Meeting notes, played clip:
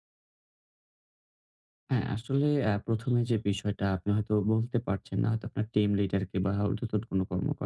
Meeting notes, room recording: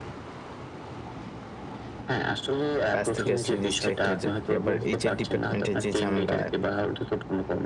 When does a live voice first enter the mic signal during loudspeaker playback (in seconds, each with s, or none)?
2.9 s